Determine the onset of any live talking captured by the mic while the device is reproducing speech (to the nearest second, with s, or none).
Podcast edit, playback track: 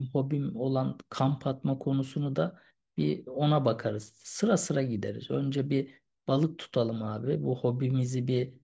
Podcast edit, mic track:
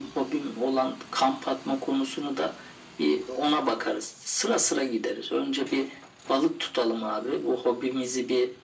none